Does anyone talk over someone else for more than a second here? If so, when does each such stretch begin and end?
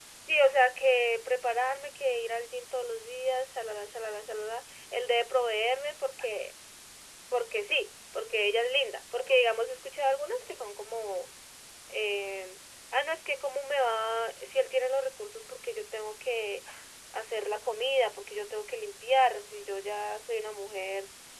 none

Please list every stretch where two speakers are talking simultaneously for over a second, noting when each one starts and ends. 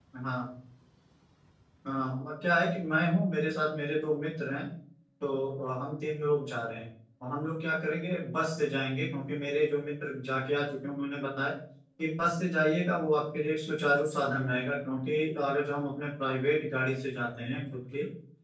none

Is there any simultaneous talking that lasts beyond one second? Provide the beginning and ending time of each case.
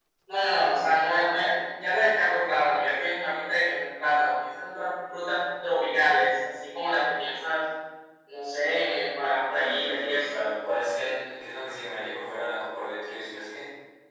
9.2-10.4

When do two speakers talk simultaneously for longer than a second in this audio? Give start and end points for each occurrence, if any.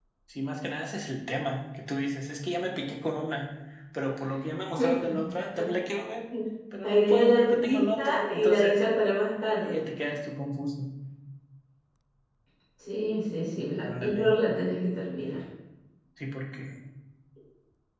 6.8-8.8

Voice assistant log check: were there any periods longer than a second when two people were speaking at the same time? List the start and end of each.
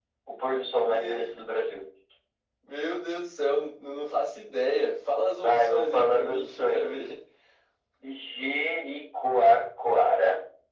5.4-7.1

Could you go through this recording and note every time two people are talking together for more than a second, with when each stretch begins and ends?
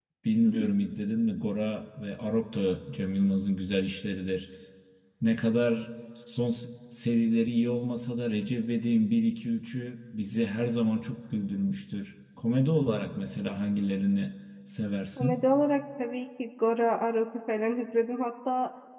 none

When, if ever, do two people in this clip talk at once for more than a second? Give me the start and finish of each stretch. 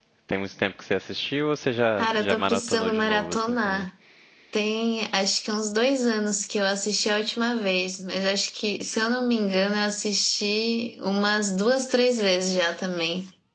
2.0-3.9

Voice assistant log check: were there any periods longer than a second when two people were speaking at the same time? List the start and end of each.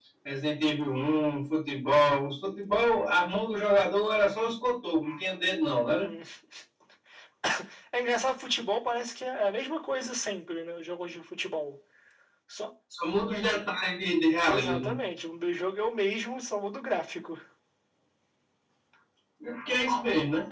none

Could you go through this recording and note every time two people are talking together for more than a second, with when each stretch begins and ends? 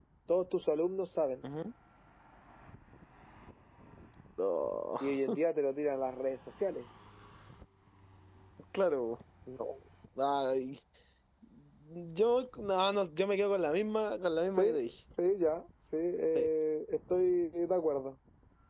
none

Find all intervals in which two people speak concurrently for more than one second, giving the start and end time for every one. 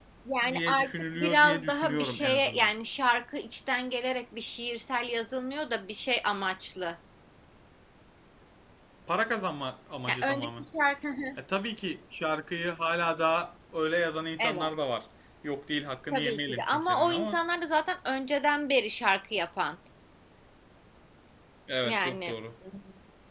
0.5-2.7, 16.1-17.4

